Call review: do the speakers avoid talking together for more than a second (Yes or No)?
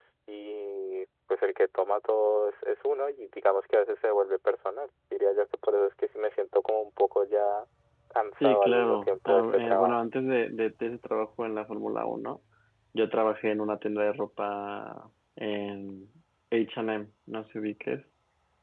No